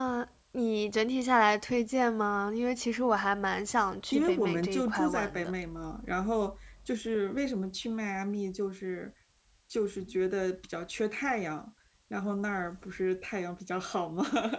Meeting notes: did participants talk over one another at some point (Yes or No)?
Yes